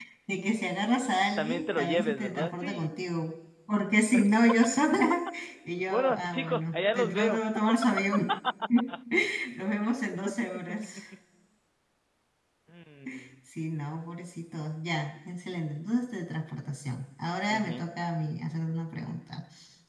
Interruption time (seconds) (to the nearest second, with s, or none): 1 s